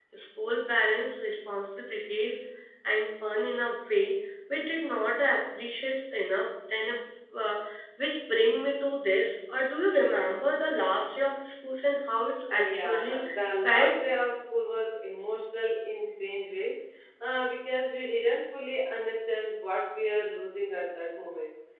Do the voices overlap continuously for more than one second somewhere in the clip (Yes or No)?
Yes